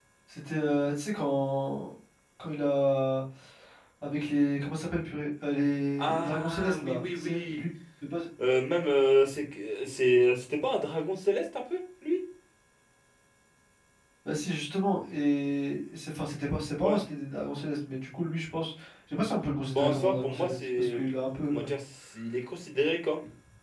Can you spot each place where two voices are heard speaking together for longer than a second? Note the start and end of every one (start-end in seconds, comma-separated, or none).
6.0-7.6, 19.8-21.0